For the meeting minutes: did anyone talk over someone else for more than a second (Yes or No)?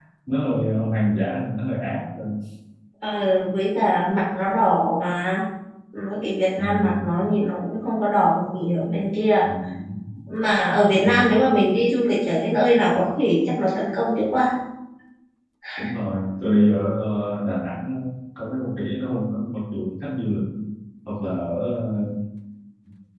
No